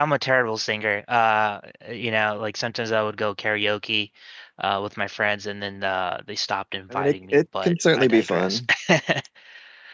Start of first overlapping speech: 7 s

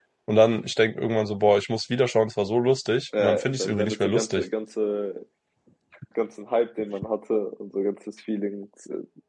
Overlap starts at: 3 s

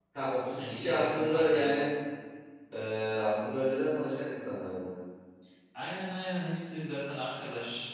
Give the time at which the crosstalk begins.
1 s

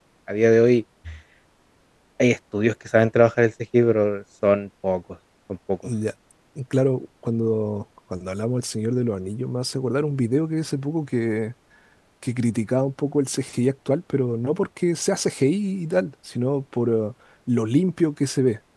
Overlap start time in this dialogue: none

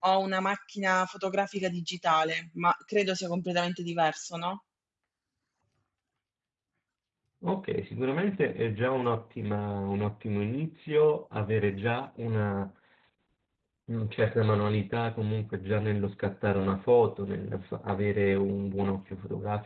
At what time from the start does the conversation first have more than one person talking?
none

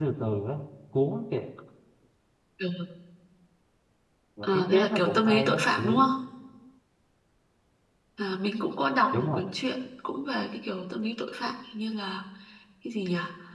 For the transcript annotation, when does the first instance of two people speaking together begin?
4 s

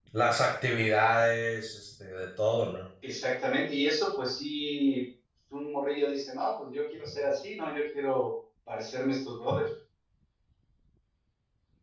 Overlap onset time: none

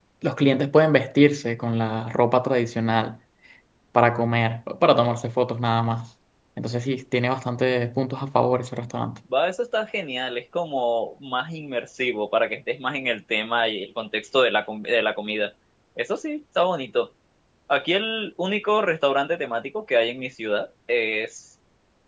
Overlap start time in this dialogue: none

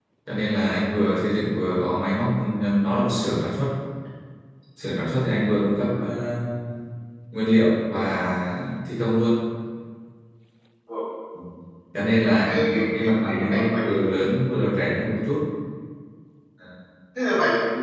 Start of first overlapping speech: 12 s

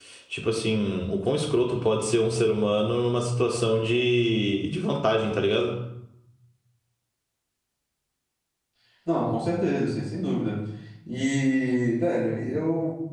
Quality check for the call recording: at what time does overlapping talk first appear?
none

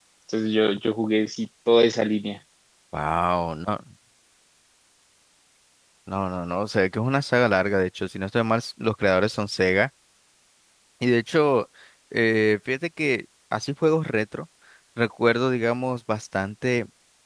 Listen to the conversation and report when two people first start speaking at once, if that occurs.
none

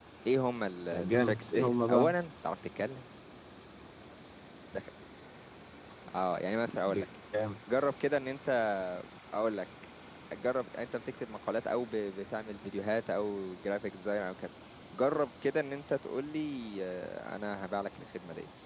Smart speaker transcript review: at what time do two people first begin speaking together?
1 s

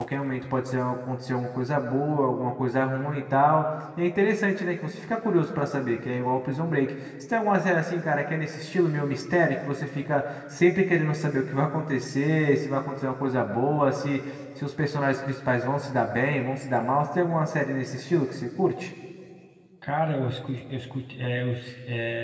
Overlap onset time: none

